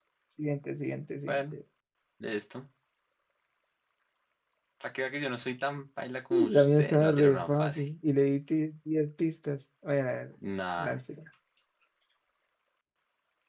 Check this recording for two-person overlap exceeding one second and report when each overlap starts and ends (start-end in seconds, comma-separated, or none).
6.3-7.8